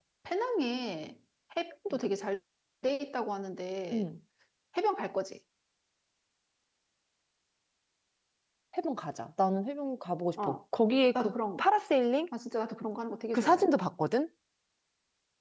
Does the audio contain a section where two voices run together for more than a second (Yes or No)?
No